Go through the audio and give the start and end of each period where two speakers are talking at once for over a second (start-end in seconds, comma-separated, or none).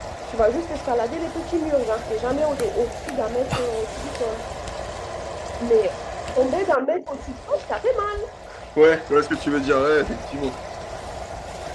none